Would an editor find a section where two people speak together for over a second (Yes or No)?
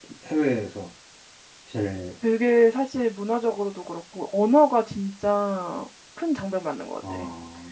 No